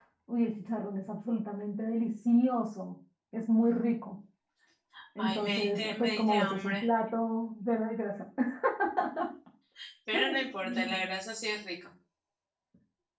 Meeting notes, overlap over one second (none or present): present